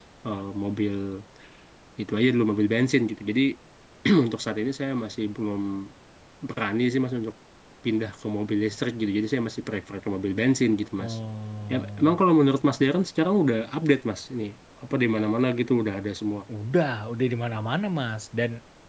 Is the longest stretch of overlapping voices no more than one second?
Yes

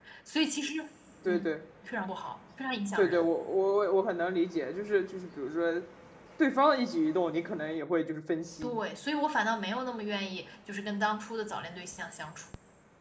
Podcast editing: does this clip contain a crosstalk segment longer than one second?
No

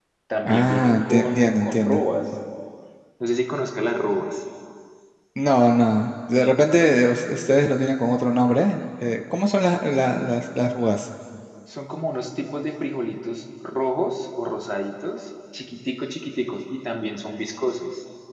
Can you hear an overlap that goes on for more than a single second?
Yes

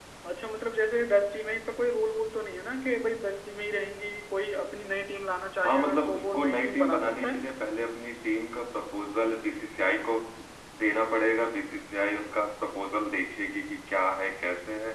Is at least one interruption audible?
Yes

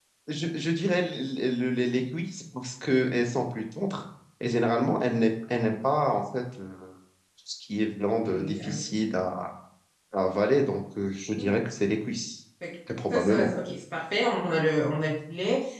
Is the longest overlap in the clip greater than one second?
No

